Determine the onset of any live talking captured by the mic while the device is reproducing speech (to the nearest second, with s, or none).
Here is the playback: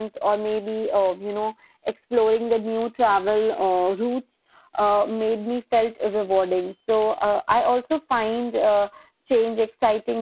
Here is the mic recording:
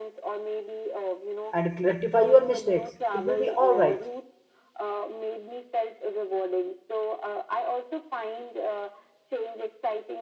2 s